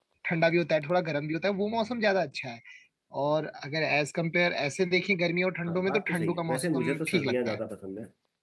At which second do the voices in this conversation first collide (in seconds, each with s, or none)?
5.7 s